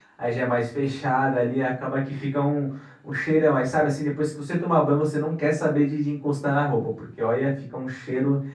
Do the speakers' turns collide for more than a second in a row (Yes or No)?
No